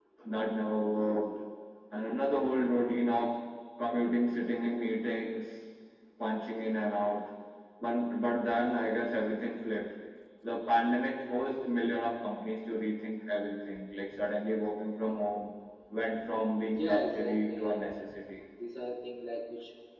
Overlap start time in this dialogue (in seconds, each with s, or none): 16.7 s